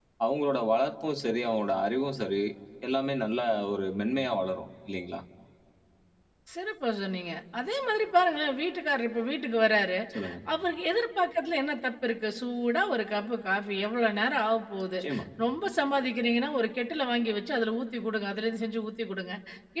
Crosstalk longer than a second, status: none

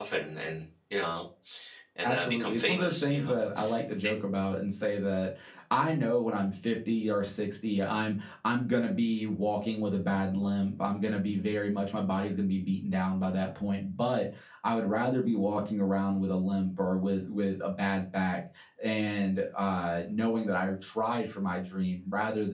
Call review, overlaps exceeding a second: present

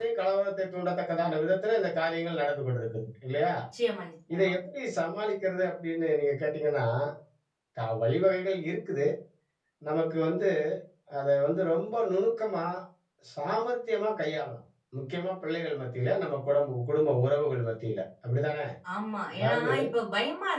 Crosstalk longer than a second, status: none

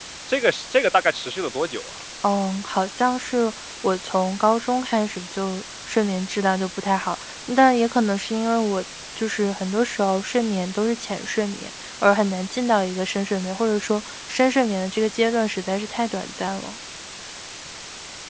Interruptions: none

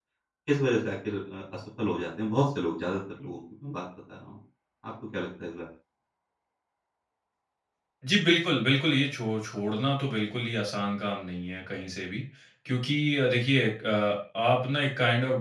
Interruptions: none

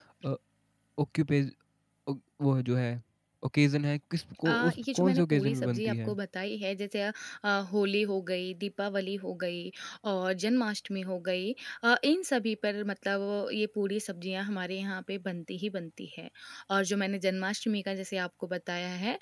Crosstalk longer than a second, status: present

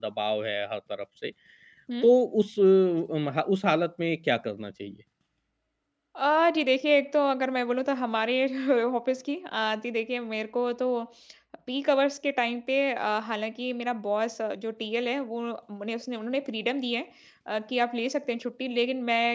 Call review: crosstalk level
none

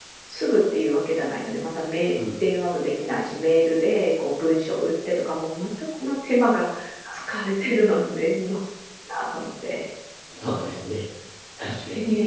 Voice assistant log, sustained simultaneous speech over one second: none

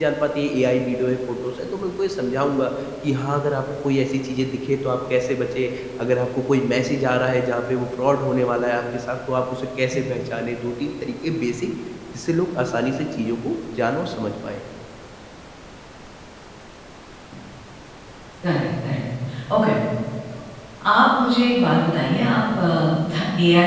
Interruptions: none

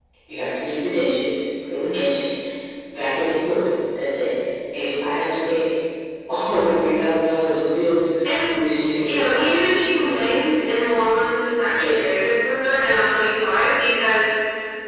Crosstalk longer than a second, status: present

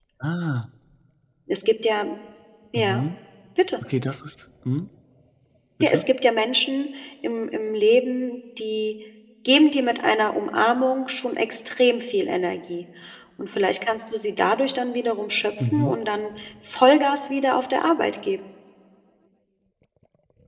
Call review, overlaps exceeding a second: none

